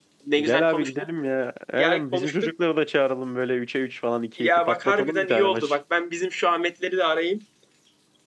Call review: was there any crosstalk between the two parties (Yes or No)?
Yes